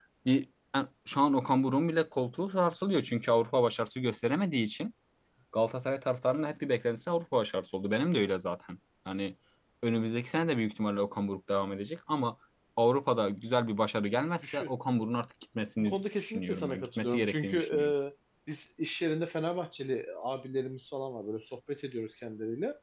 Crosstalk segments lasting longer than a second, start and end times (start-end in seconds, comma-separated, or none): 15.8-17.8